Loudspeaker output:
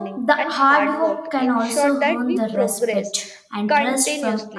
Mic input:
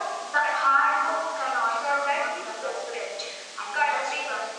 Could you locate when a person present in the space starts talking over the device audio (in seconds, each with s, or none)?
none